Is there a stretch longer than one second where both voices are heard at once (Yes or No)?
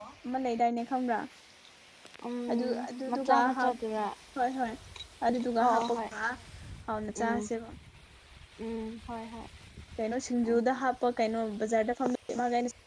Yes